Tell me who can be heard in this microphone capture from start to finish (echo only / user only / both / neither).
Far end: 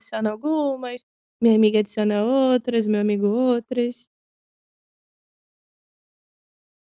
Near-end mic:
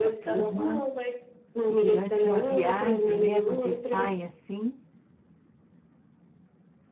both